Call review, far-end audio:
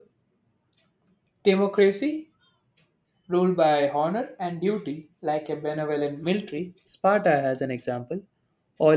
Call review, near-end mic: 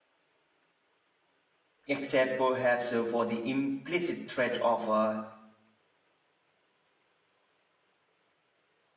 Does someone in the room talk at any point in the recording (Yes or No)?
Yes